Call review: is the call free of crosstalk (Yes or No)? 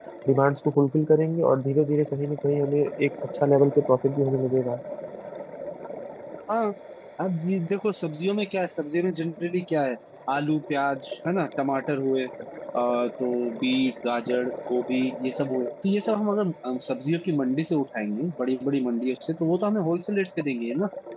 Yes